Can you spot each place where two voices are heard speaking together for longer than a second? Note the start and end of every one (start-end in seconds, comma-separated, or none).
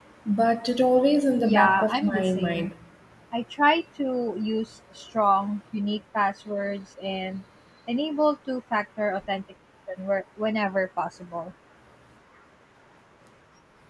1.4-2.7